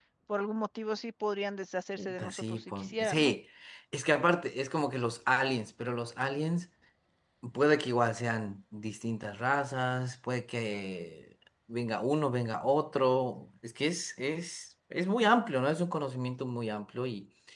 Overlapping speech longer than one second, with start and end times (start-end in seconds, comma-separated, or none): 2.0-3.3